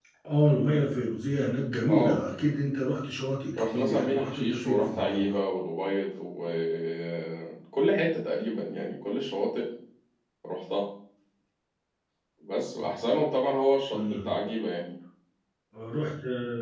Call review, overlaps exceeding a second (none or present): present